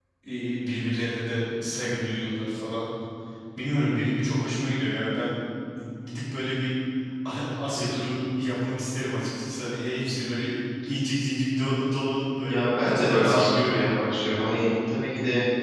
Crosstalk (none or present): present